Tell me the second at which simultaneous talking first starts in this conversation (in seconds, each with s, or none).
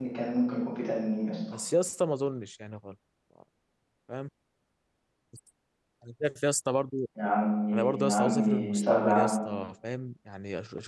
7.7 s